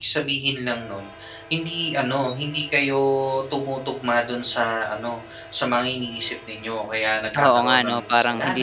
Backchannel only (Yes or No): No